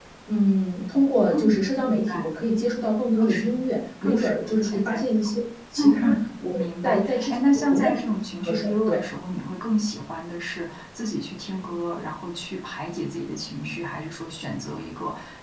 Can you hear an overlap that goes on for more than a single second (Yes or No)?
Yes